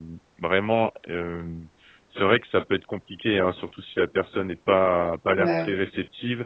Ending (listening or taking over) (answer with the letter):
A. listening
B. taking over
A